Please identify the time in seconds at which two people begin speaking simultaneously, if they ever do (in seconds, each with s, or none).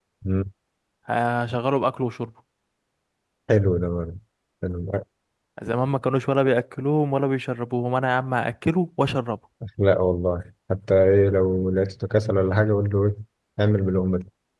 none